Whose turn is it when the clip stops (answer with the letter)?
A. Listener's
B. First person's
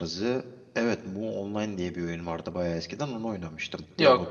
A